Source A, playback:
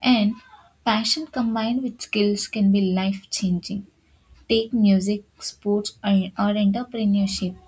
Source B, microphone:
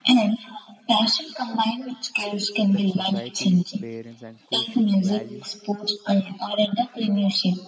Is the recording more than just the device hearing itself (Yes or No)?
Yes